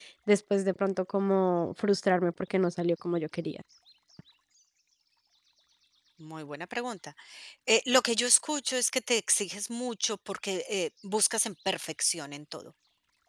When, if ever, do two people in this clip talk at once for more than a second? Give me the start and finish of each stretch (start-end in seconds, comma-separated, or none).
none